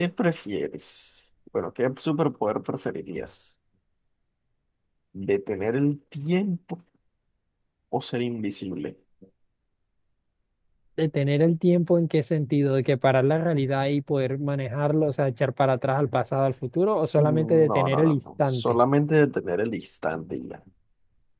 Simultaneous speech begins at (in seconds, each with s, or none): 17.2 s